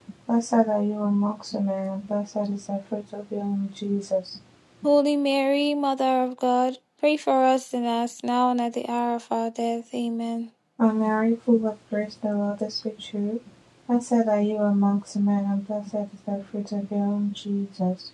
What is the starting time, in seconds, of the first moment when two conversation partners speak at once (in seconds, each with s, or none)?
none